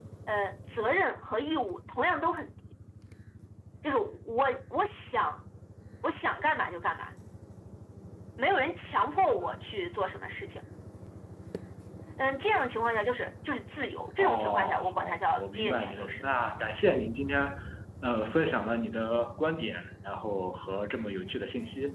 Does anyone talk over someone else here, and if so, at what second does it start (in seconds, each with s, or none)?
14.2 s